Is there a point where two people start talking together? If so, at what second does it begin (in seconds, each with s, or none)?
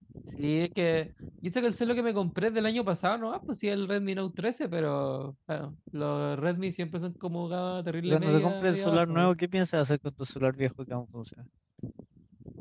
8.1 s